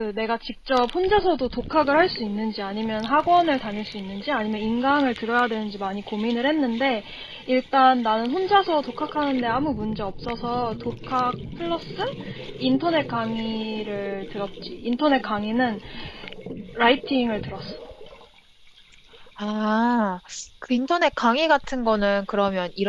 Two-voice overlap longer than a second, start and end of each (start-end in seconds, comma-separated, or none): none